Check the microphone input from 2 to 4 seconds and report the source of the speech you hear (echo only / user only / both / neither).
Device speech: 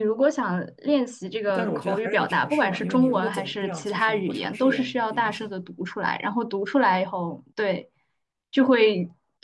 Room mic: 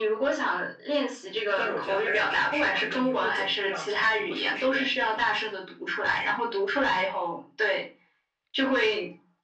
echo only